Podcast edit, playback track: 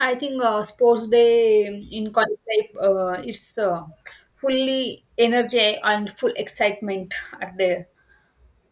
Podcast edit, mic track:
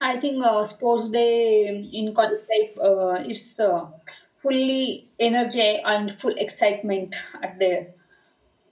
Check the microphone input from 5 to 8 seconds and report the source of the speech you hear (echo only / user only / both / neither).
echo only